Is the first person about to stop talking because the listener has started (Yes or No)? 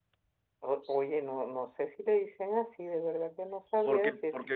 Yes